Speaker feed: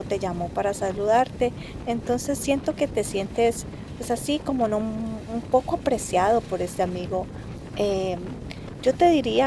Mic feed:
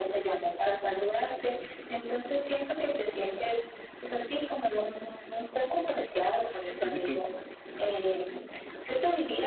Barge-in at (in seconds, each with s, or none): 6.8 s